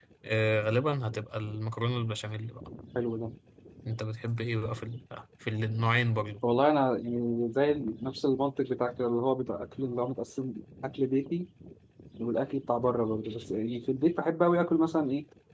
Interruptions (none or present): none